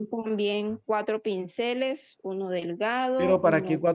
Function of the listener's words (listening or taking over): taking over